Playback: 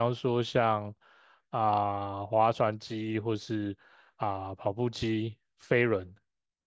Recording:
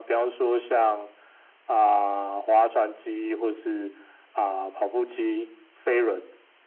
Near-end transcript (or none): none